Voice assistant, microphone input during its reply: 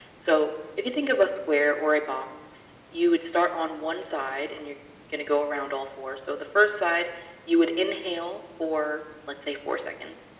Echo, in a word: present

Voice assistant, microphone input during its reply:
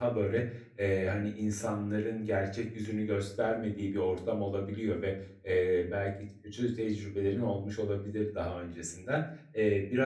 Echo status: none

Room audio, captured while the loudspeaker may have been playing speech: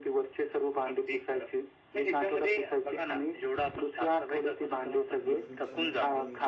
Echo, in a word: present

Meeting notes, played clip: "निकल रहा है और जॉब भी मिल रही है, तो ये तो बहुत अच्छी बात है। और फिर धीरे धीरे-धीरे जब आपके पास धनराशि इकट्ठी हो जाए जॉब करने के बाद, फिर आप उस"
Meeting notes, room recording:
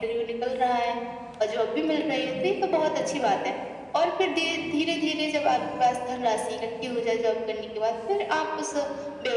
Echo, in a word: present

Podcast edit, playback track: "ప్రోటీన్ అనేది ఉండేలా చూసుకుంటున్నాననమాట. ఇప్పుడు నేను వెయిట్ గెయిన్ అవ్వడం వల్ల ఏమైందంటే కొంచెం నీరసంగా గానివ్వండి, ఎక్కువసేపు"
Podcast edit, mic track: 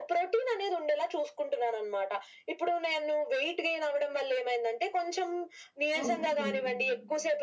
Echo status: present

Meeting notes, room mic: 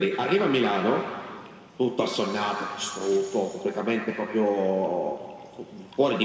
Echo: present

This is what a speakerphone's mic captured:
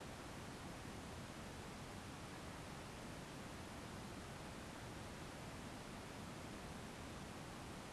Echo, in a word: none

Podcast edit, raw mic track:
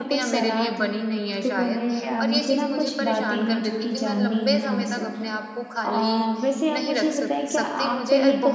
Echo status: present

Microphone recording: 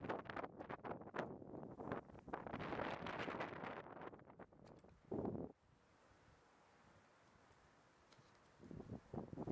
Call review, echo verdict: none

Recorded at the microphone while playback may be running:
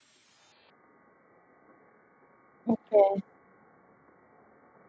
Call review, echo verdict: none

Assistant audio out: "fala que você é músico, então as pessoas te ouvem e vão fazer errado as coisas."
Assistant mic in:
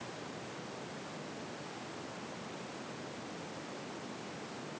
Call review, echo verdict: none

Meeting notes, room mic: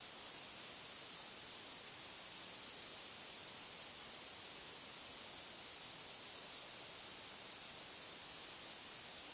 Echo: none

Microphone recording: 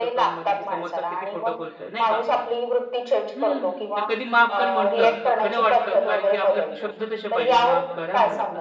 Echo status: present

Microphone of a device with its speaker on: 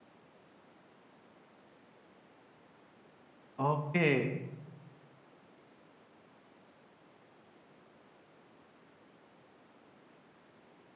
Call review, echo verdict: none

